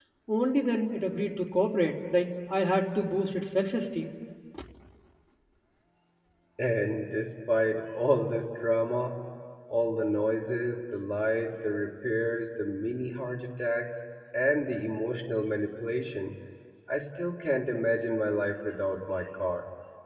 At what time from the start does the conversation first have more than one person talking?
none

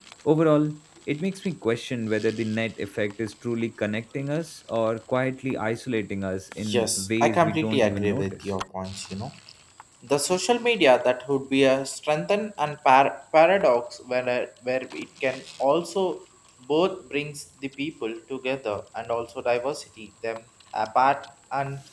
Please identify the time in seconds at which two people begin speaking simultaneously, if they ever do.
7 s

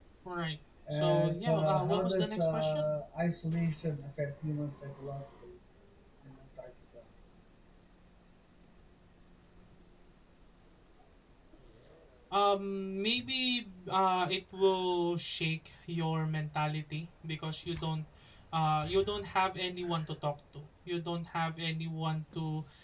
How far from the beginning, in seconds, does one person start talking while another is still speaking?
1 s

